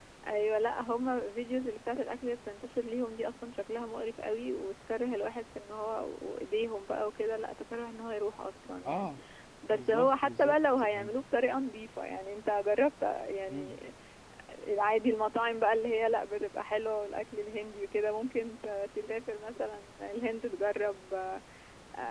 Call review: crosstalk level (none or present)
present